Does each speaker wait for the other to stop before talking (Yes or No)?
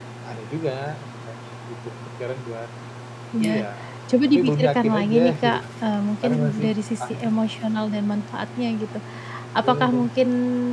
No